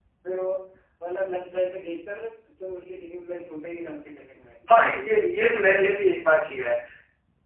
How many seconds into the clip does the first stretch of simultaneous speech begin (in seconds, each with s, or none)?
none